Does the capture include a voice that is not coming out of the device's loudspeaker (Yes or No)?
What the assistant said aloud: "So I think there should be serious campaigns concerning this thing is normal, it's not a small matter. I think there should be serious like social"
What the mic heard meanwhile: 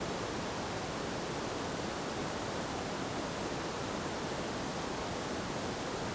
No